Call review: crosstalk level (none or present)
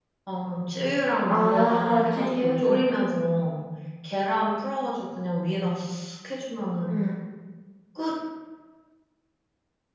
present